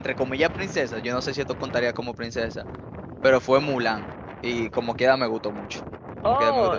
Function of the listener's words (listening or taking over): taking over